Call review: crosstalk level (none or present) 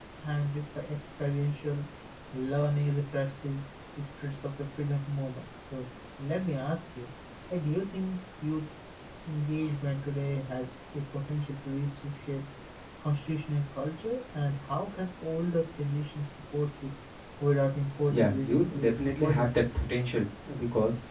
present